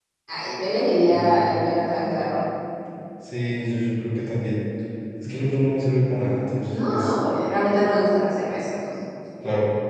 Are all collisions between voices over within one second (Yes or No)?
Yes